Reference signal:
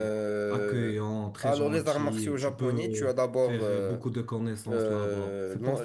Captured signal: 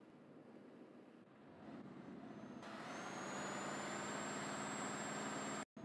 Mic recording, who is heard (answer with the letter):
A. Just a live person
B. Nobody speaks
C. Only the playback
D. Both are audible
B